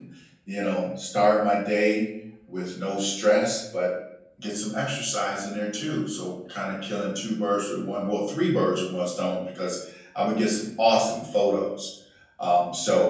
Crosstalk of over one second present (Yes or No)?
No